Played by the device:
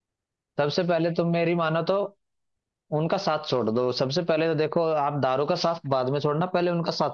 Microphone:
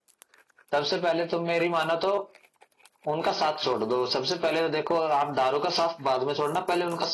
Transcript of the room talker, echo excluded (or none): none